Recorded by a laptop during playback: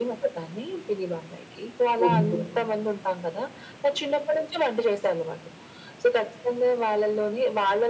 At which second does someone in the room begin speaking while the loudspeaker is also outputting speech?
2.0 s

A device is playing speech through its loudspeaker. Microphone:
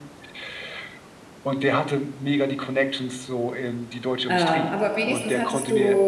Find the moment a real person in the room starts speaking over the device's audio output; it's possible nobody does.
4.3 s

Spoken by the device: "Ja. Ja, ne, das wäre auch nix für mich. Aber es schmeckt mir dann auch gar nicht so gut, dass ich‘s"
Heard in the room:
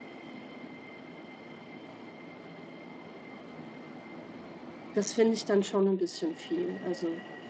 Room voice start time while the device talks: 4.9 s

